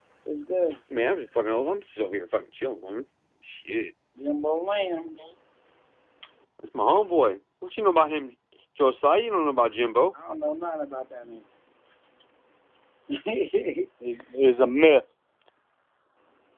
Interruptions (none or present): none